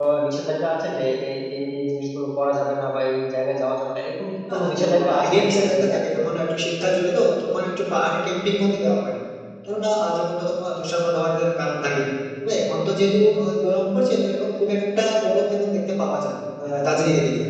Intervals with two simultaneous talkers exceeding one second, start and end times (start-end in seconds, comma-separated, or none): 4.5-5.9